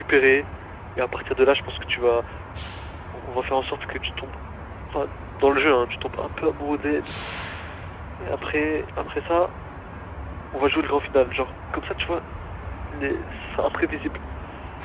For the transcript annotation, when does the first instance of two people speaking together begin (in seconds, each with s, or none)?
none